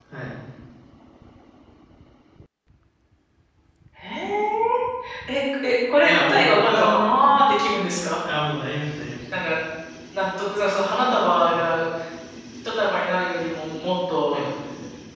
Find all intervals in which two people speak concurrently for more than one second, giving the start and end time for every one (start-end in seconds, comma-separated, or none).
6.0-7.4